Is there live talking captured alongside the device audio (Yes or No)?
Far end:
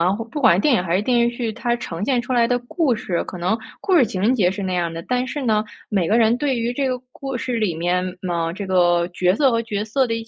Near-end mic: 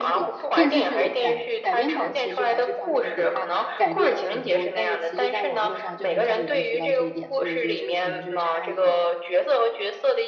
Yes